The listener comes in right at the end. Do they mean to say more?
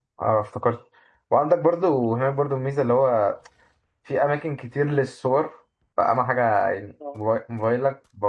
No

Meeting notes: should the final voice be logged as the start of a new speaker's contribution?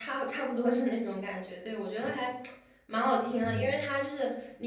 No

